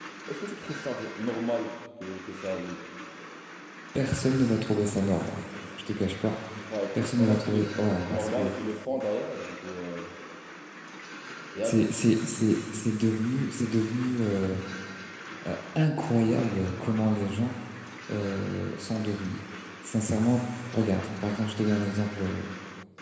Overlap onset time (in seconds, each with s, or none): 7.0 s